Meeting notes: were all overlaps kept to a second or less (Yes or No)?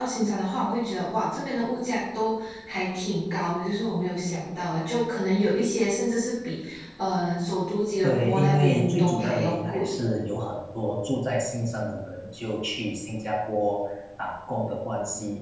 No